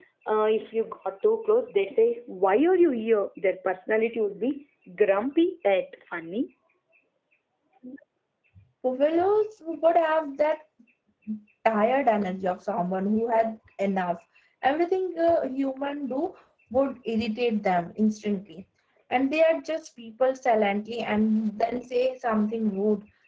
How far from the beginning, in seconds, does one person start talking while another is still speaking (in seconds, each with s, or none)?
none